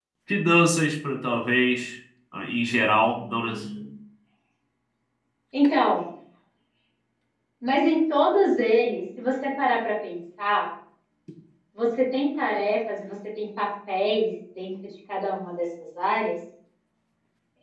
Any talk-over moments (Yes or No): No